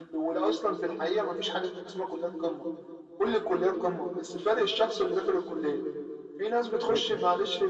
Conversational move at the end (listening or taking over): listening